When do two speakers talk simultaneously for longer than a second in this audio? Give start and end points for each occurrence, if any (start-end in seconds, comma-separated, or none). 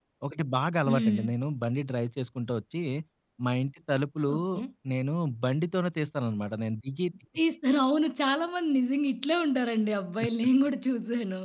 none